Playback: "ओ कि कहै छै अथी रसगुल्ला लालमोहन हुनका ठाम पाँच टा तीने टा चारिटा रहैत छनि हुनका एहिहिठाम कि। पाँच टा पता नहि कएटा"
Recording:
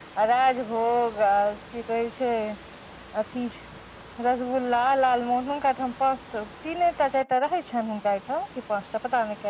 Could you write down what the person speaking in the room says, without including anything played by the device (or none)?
none